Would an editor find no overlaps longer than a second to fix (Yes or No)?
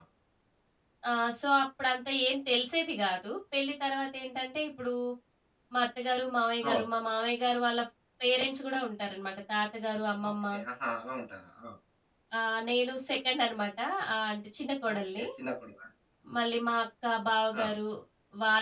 Yes